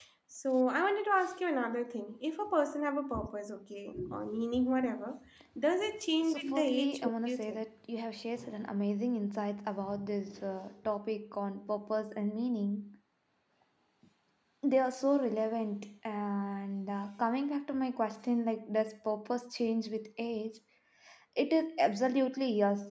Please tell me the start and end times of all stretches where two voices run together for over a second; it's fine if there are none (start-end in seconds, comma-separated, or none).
6.2-7.7